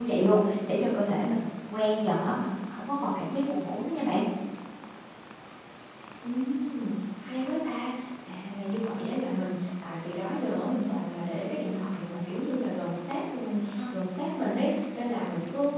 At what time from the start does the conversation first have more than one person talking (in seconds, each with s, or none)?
none